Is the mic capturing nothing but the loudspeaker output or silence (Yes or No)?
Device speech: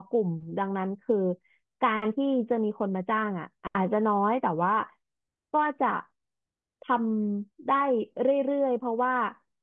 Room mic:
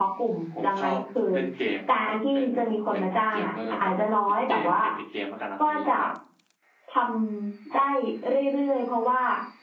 No